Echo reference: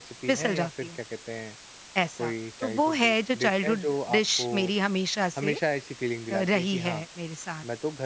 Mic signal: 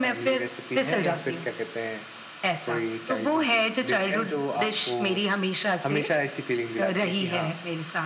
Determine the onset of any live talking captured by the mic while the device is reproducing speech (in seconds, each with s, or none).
none